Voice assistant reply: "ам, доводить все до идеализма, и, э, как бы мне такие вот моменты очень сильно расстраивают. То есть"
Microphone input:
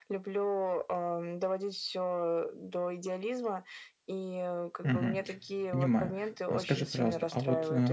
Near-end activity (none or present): present